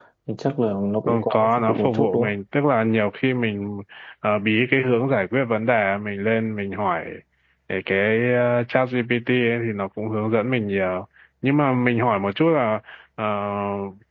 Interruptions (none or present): present